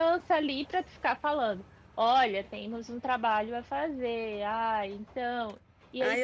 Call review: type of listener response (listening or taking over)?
taking over